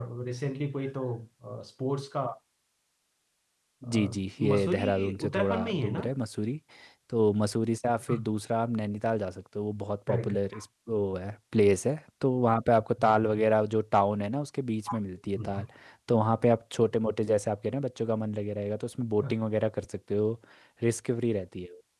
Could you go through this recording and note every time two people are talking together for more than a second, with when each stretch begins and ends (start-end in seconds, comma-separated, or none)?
4.5-6.0